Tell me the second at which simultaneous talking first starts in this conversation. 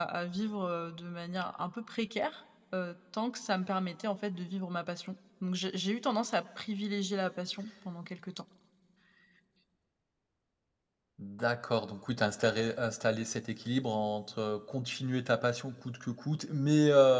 none

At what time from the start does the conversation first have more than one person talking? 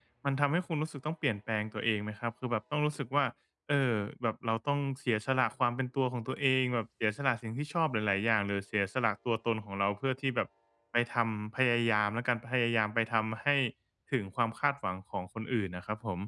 none

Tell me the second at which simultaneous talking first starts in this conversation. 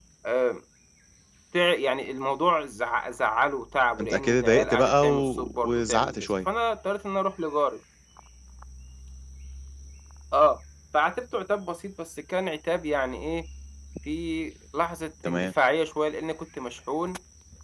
4.0 s

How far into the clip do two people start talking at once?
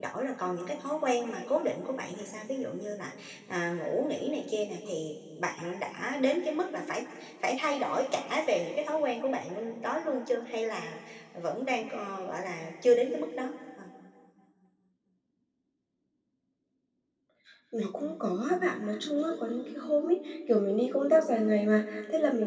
none

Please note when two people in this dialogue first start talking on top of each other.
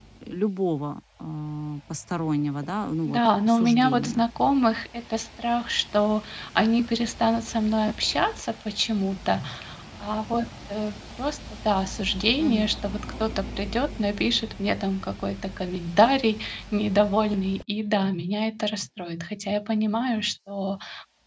3.0 s

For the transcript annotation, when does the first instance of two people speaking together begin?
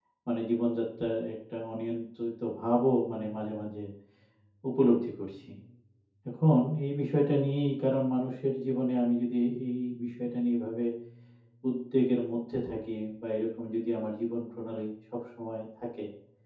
none

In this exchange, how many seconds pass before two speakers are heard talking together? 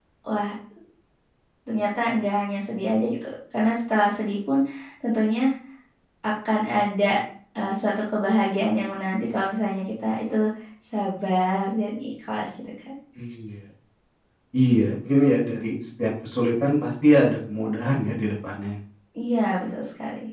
none

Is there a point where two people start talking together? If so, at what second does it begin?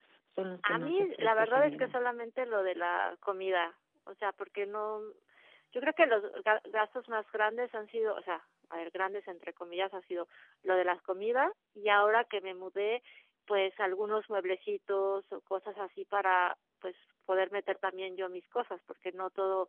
0.6 s

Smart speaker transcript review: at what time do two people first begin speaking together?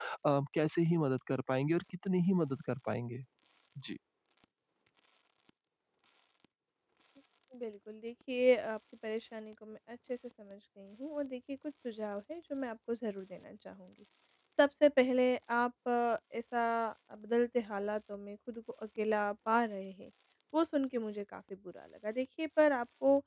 none

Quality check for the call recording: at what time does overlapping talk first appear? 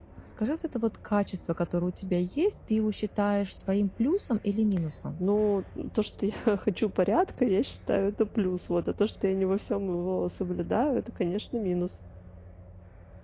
none

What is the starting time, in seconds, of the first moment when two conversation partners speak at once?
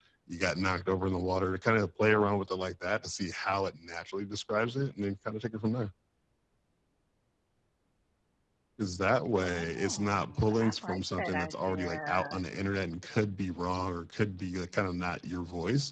9.4 s

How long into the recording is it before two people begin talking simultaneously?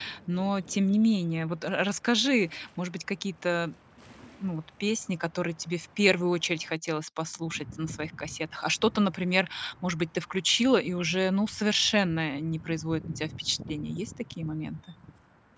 none

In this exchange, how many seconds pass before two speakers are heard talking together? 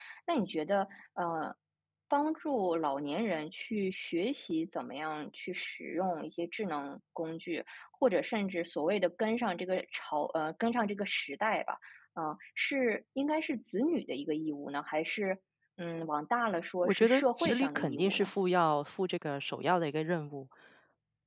16.8 s

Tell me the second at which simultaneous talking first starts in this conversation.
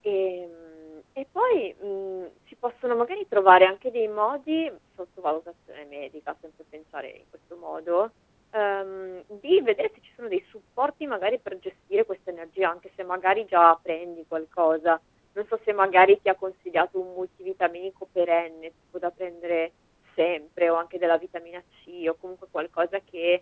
none

